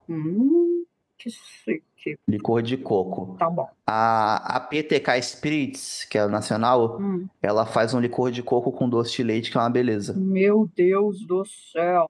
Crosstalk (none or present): none